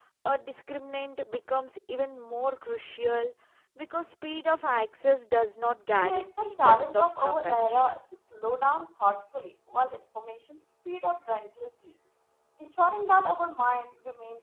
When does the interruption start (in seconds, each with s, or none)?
6.0 s